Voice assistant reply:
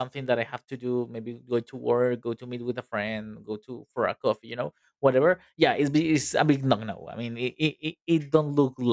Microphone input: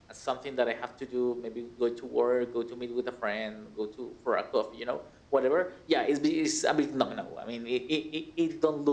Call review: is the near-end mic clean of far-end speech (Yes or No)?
No